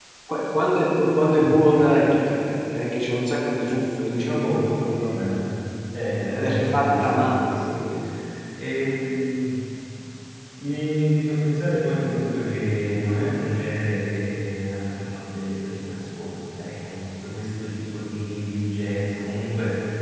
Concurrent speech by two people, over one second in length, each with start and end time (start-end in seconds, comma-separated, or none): 4.1-5.4, 6.2-7.8